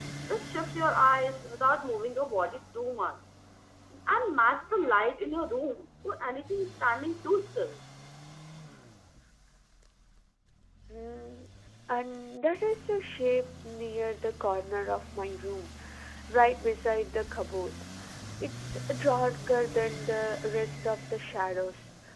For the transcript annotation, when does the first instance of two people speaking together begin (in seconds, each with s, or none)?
none